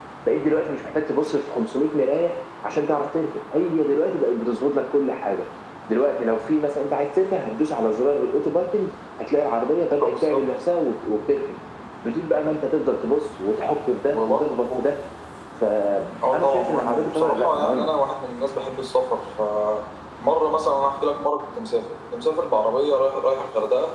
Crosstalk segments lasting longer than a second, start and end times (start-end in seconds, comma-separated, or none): 16.3-17.9